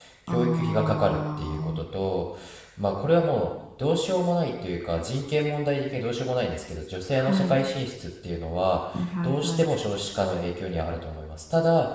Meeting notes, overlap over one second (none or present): present